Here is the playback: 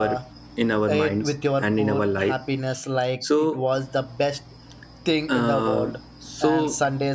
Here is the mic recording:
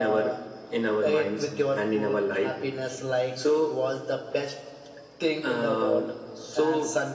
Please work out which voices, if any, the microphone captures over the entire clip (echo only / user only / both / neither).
echo only